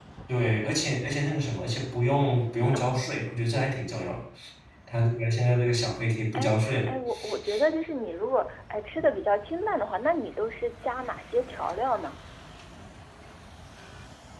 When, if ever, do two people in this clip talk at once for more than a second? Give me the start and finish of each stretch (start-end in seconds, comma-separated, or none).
none